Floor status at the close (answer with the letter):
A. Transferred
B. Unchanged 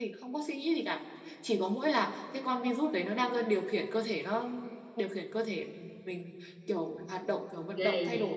A